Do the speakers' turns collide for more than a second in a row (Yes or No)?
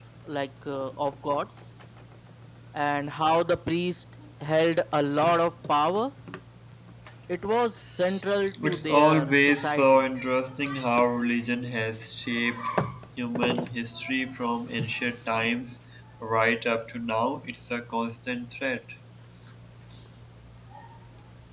Yes